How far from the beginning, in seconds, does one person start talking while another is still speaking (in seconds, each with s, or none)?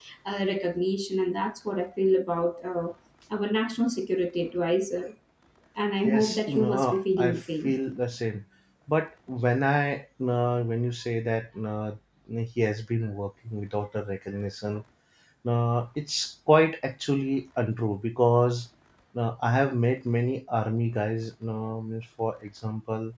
6.0 s